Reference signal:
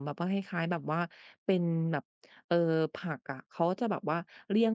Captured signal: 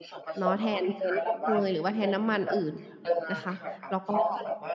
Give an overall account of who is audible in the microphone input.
both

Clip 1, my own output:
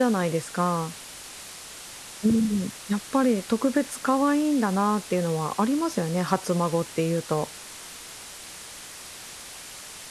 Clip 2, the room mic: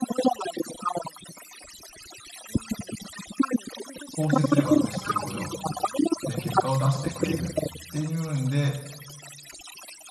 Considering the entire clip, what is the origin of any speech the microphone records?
both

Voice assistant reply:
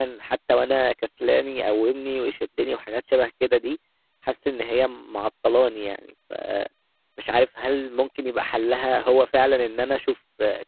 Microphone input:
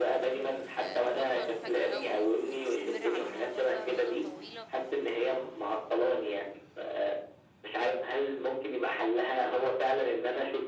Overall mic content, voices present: both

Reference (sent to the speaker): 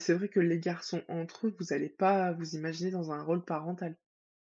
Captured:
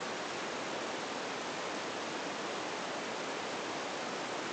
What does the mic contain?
neither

